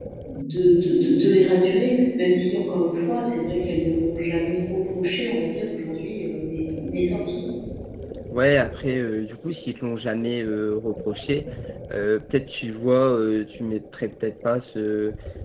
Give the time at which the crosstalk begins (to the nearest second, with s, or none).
none